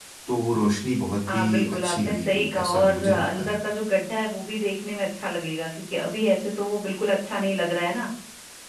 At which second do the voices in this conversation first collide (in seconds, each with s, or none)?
1.3 s